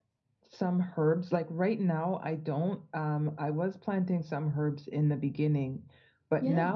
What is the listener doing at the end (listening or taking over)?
listening